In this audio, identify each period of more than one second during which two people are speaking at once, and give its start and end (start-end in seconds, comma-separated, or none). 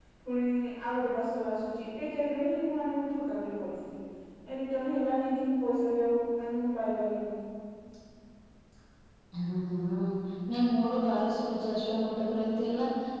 none